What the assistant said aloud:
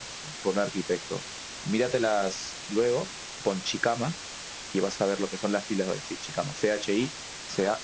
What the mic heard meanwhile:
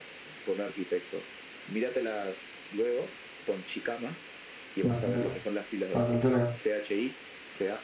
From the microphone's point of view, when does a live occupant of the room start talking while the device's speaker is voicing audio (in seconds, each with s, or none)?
4.8 s